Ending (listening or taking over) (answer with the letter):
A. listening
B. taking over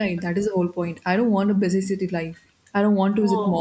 A